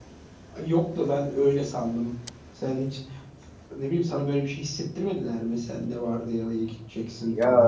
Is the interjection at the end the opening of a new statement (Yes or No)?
Yes